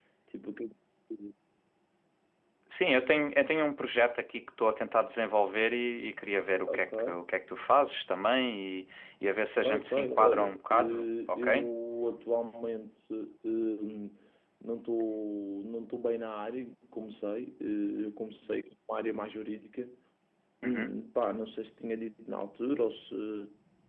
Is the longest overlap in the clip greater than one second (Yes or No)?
Yes